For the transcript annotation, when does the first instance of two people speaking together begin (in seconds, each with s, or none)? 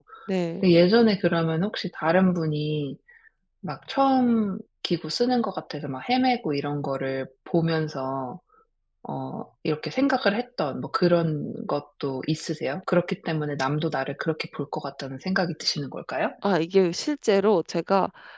none